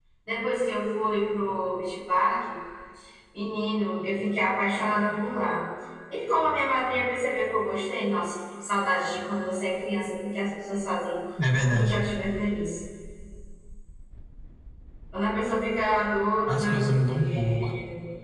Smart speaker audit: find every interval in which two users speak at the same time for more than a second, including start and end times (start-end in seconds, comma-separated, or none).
16.5-17.7